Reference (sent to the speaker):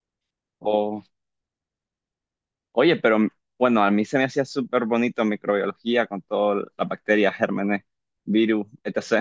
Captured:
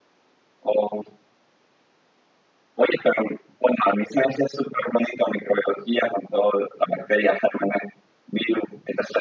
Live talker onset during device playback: none

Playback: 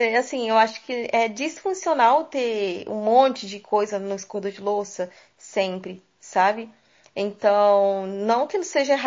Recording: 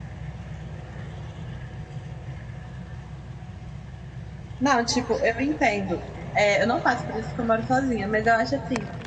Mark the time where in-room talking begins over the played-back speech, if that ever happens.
4.6 s

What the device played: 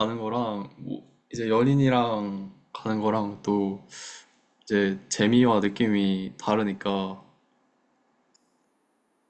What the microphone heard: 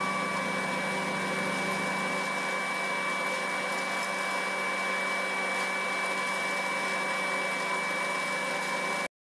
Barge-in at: none

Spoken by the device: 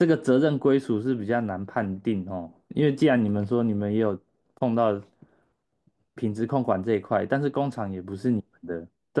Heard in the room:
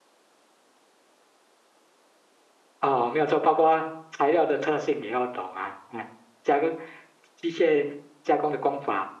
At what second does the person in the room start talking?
2.8 s

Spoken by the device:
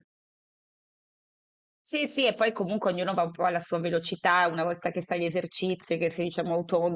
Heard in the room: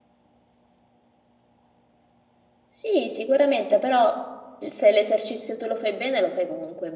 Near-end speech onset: 2.6 s

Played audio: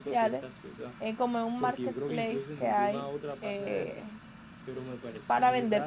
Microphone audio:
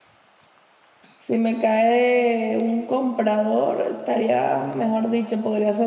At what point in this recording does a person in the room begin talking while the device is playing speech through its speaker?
1.2 s

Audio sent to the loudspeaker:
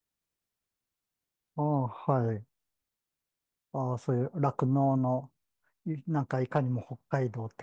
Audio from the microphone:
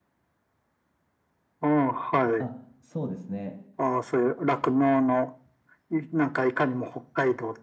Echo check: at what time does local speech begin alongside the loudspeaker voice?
2.4 s

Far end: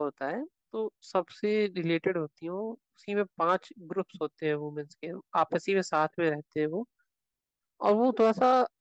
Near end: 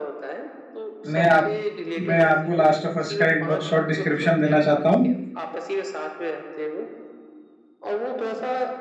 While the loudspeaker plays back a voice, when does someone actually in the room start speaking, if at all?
1.1 s

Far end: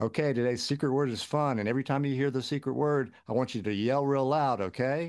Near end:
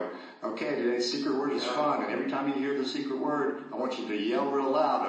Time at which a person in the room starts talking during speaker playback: 1.5 s

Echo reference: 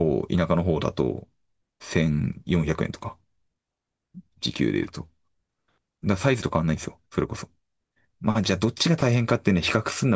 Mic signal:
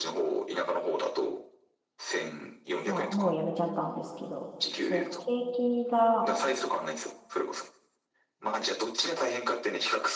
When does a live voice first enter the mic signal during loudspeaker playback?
2.8 s

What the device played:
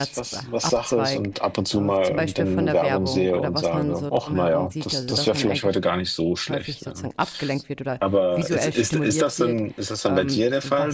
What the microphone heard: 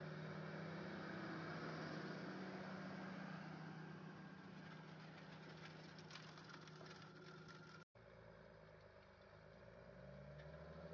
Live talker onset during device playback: none

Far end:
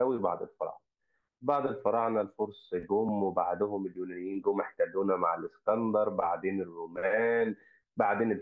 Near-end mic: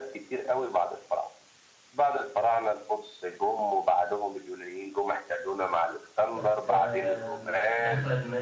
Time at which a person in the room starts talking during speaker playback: 6.3 s

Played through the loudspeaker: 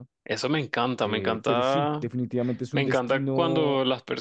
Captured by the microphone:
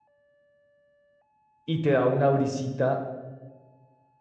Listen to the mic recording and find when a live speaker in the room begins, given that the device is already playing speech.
1.6 s

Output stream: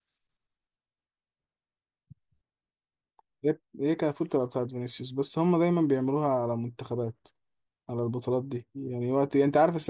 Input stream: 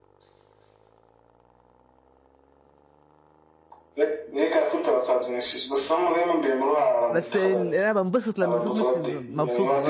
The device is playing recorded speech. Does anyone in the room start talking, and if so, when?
7.1 s

